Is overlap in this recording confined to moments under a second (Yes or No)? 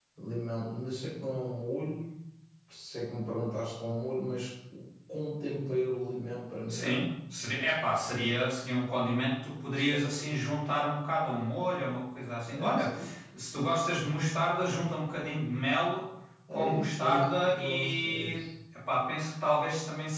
No